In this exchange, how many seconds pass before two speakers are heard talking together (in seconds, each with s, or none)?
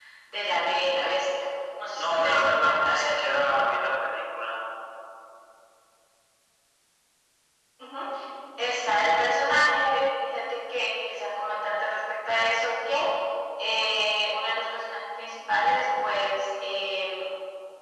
1.9 s